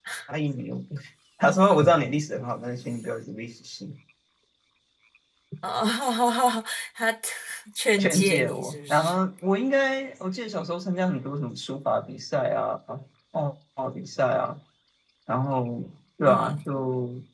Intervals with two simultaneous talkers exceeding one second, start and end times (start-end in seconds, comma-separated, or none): 8.0-9.2